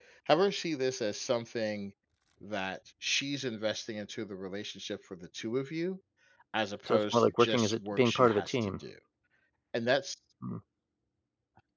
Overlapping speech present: Yes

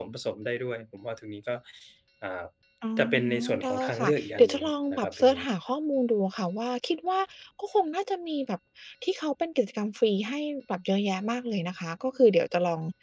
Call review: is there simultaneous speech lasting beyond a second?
Yes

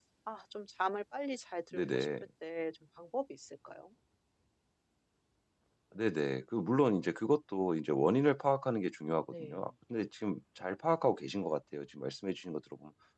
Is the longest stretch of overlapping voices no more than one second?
Yes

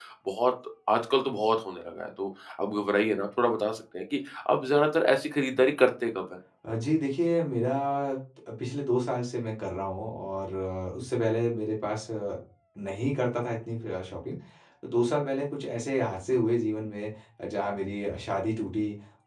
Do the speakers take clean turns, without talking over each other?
Yes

